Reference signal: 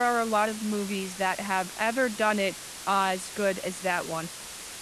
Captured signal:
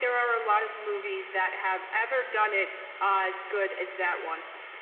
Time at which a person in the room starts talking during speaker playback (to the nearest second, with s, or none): none